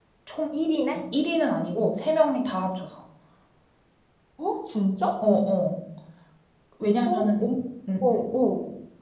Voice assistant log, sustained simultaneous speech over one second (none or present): none